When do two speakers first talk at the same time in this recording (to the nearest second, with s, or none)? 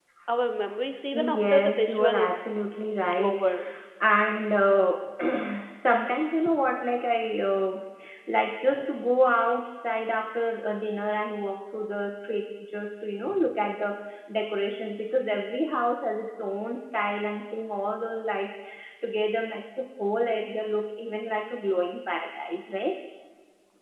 1 s